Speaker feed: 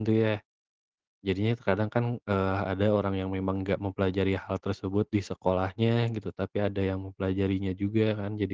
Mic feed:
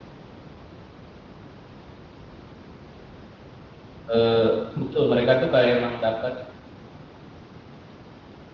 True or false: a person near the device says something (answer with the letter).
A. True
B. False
A